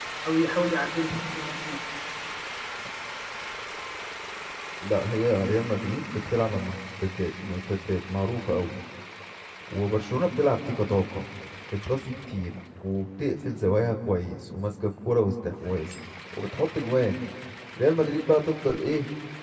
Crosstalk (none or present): none